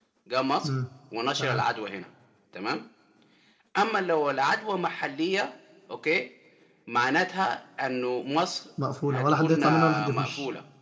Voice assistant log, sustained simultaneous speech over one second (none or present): present